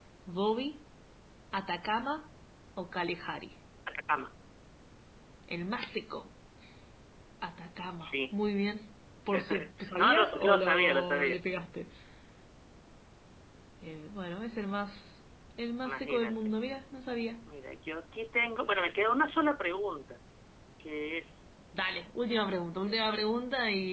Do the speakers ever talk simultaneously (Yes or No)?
Yes